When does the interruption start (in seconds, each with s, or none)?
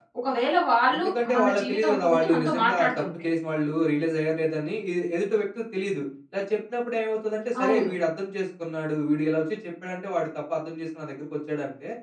0.9 s